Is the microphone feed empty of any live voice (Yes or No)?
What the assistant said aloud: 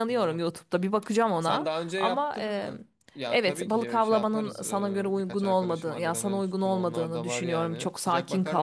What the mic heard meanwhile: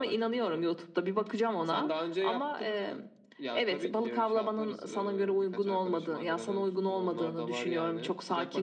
Yes